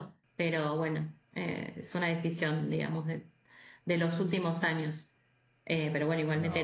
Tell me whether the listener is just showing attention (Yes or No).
Yes